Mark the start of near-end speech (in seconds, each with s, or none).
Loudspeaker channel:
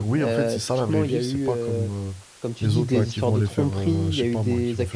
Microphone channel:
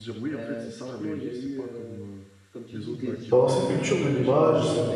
3.3 s